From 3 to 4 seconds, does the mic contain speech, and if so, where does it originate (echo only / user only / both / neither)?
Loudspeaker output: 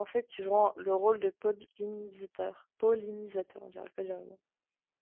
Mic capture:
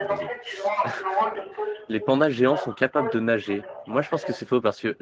both